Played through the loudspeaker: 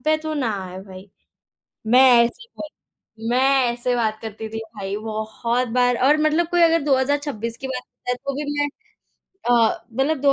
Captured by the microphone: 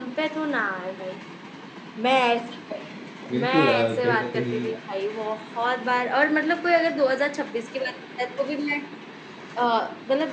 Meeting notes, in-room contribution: present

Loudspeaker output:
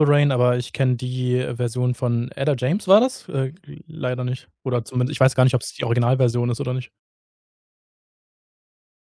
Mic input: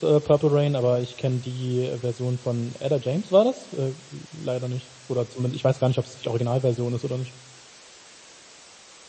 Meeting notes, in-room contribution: none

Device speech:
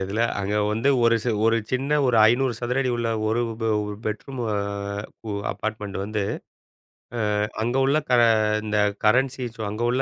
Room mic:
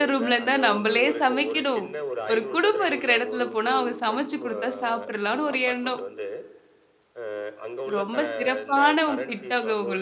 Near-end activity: present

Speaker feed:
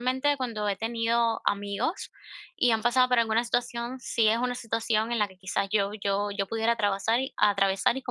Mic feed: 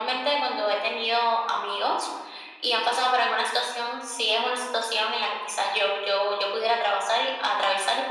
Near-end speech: none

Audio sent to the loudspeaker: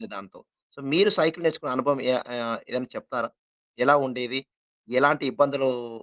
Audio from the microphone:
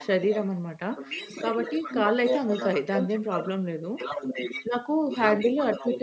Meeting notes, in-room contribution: present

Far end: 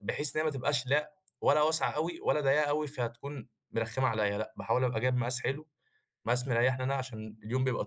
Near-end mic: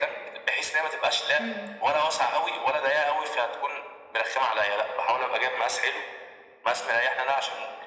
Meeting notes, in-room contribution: present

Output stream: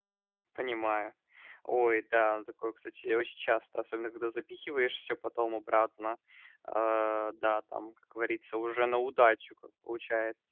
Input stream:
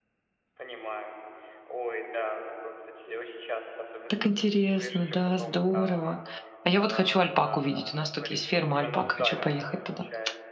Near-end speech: present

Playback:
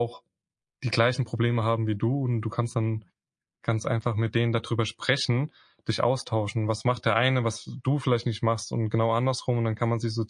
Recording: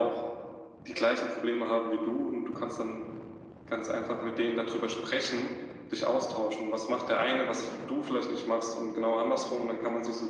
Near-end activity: none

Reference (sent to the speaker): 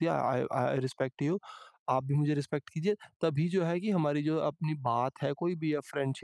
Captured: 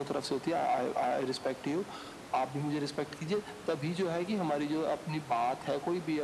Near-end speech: none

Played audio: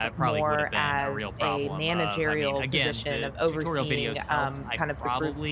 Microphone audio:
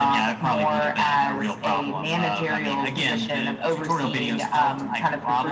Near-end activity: none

